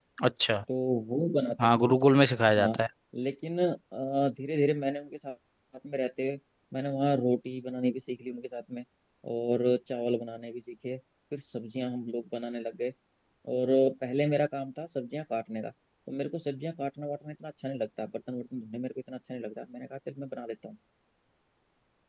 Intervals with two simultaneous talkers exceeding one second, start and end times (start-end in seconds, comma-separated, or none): none